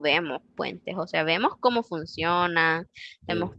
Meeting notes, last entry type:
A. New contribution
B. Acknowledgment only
B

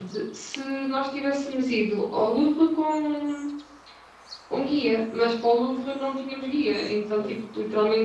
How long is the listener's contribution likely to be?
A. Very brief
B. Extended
A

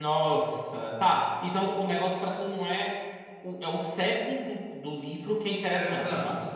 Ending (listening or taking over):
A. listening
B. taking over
B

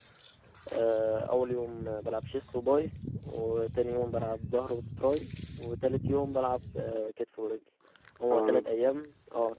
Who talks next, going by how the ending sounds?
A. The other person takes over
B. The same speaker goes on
B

